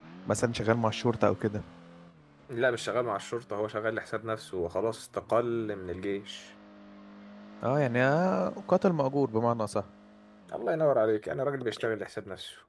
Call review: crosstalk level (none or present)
none